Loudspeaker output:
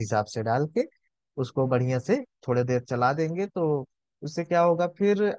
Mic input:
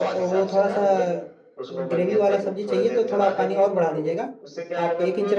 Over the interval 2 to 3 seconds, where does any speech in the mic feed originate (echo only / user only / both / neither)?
both